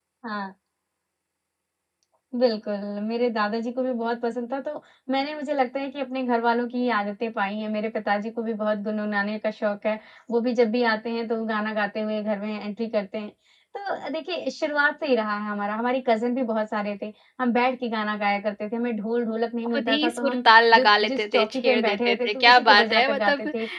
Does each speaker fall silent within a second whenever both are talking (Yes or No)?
No